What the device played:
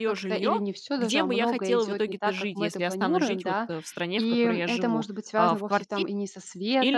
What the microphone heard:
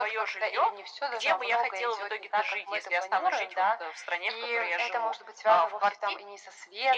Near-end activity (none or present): none